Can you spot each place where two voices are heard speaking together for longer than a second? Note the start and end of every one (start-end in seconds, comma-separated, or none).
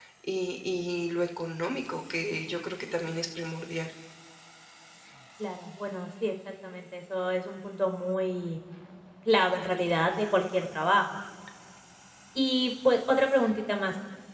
none